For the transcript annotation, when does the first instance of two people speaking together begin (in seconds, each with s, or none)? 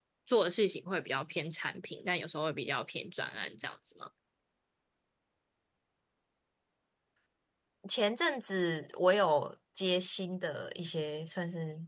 none